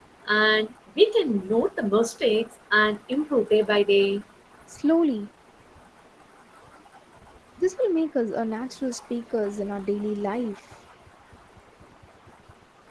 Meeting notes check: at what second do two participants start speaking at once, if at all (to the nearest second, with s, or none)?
none